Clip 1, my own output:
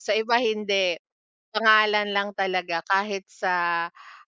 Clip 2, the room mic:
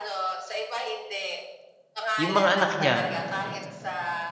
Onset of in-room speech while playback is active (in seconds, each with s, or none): 2.2 s